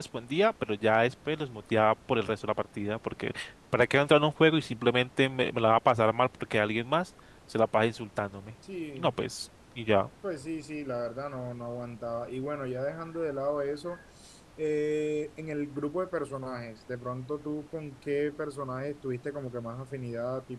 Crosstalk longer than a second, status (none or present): none